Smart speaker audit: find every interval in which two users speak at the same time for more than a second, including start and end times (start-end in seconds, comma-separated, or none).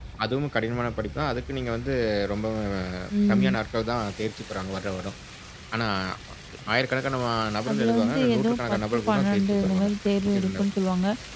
7.7-9.9